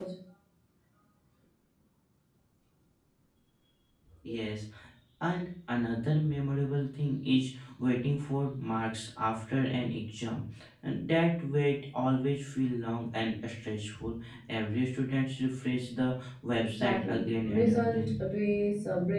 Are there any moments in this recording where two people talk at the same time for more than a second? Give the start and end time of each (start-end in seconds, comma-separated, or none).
16.8-18.1